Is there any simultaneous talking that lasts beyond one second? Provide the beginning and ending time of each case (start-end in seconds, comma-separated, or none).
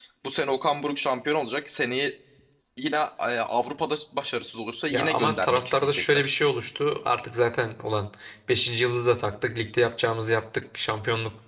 4.9-6.2